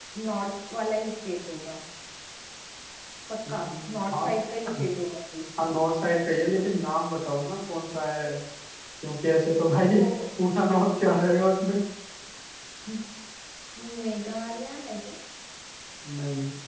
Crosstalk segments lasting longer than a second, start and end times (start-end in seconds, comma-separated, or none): none